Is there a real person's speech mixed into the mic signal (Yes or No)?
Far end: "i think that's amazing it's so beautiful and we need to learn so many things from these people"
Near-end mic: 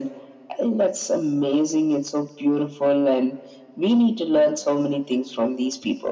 No